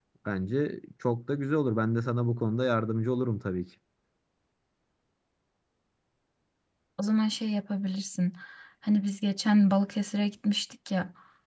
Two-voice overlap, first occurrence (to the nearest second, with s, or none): none